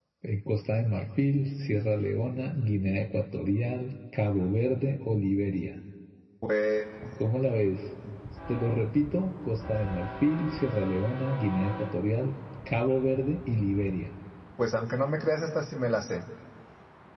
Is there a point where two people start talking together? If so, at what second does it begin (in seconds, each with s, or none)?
none